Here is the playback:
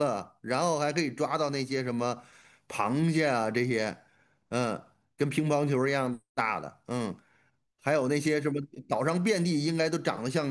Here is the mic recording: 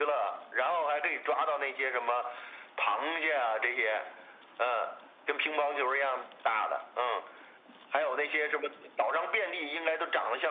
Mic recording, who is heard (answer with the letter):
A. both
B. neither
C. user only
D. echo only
D